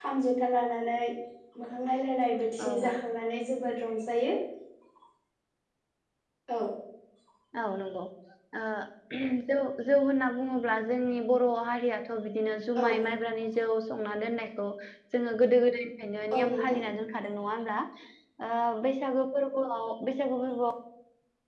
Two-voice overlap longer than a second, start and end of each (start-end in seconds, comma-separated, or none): none